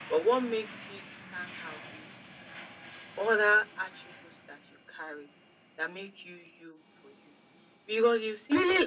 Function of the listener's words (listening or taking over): taking over